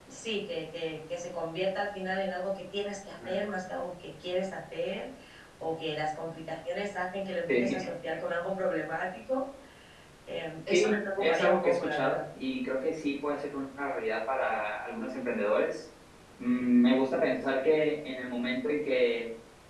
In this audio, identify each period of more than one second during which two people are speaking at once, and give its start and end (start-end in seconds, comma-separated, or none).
10.7-12.2